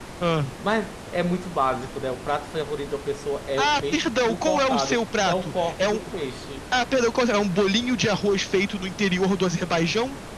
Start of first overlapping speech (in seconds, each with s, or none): 3.6 s